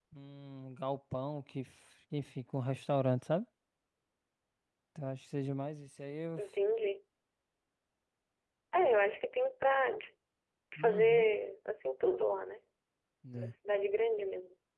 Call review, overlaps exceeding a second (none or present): none